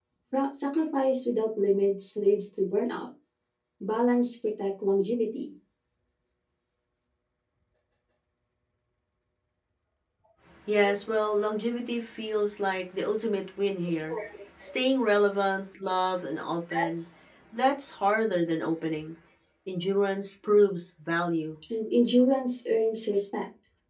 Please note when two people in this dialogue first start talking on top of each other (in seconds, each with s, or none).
none